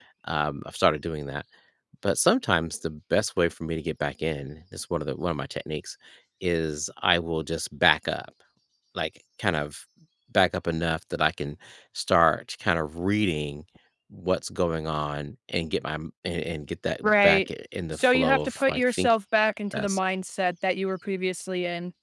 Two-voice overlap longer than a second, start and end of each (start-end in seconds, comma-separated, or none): 17.9-19.2